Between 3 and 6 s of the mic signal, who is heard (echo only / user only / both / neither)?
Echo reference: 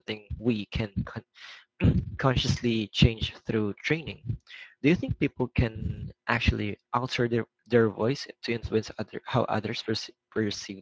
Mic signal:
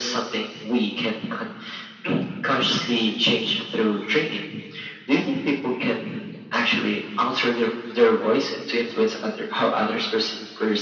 echo only